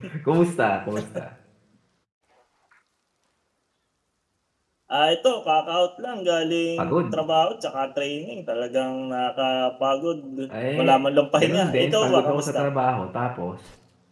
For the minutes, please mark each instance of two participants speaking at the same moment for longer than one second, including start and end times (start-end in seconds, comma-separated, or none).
11.4-12.6